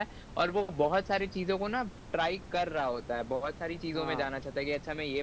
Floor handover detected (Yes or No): No